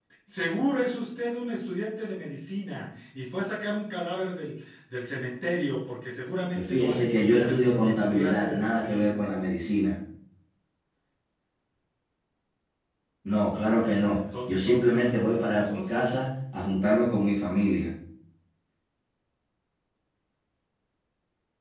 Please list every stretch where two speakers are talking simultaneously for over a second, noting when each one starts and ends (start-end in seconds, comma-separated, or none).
6.5-9.2, 14.1-15.9